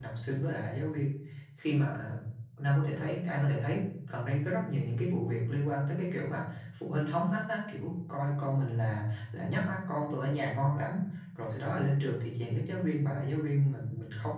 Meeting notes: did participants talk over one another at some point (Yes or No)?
No